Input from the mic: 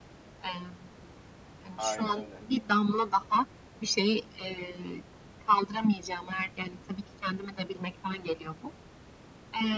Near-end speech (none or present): present